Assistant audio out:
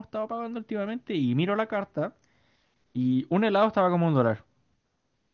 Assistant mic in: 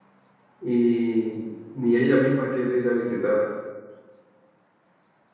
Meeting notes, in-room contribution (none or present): present